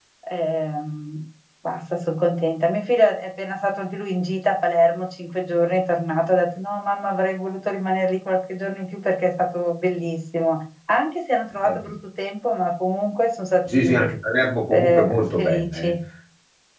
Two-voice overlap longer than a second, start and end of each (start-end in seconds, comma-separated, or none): 14.7-15.9